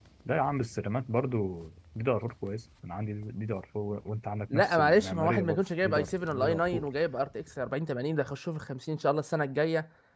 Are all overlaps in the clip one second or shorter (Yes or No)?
No